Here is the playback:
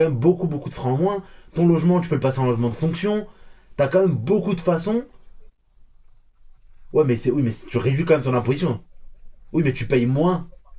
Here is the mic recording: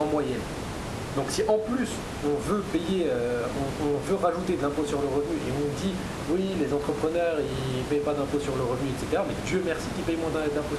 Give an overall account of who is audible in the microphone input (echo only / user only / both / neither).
user only